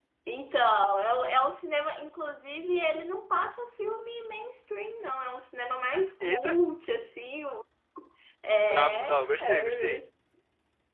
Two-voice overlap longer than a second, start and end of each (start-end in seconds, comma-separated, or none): 8.7-10.0